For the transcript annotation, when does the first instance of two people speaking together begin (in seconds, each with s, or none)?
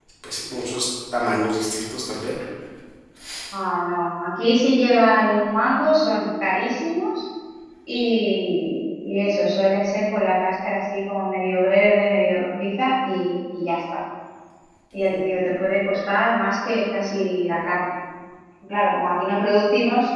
none